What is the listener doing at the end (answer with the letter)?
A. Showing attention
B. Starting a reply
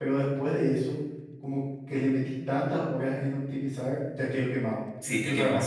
B